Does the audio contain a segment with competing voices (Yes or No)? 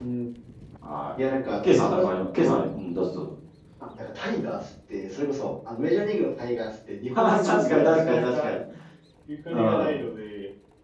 Yes